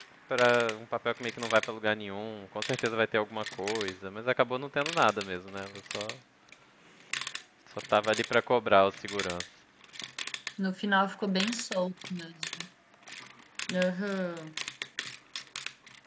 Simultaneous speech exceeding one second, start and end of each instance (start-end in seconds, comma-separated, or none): none